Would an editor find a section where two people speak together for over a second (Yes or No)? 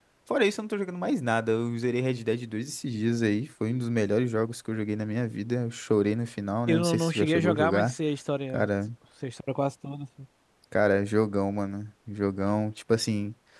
Yes